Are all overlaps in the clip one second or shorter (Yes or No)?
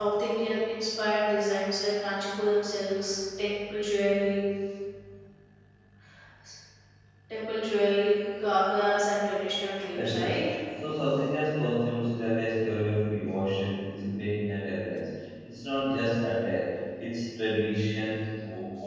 Yes